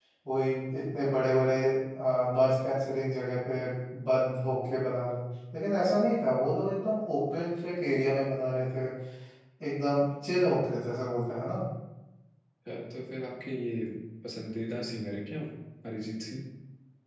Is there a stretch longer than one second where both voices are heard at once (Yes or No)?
No